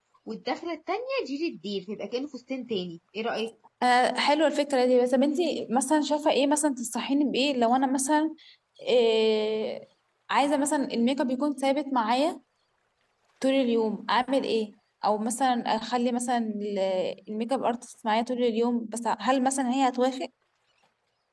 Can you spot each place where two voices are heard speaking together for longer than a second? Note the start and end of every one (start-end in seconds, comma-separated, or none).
none